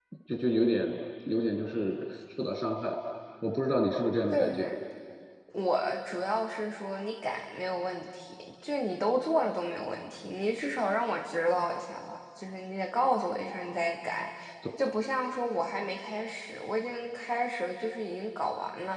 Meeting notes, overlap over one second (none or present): none